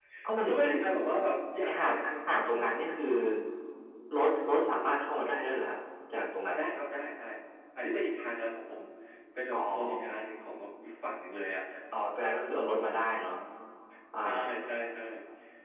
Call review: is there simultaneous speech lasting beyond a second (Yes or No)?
Yes